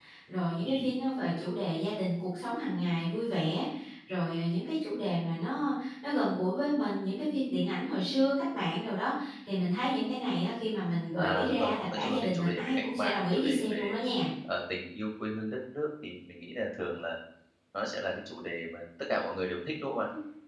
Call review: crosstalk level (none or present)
present